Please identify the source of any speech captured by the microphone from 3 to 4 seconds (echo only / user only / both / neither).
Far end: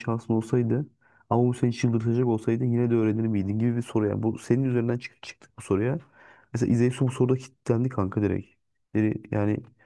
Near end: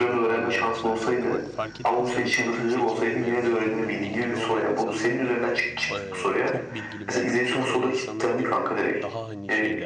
both